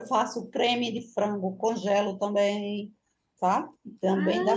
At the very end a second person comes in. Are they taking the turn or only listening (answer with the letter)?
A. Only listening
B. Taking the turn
A